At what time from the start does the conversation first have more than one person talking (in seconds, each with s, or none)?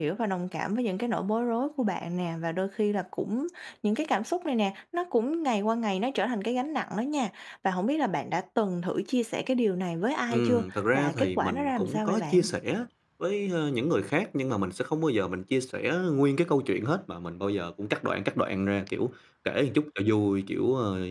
10.3 s